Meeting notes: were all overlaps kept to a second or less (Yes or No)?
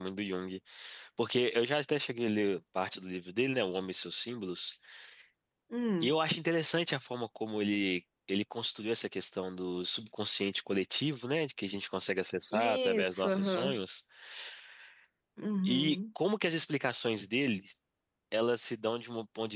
No